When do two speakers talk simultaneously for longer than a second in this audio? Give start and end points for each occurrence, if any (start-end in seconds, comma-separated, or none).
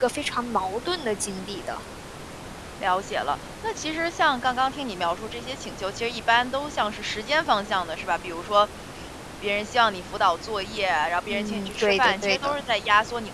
11.3-12.6